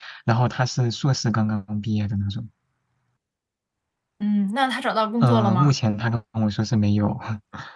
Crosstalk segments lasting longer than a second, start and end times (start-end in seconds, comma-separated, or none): none